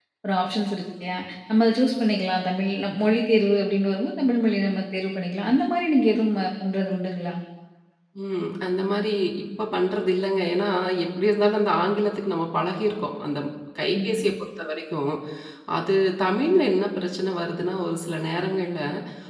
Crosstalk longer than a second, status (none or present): none